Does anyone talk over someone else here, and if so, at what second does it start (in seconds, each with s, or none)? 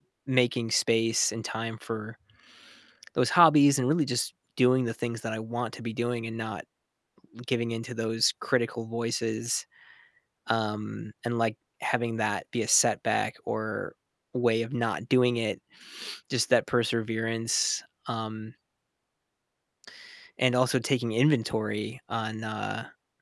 none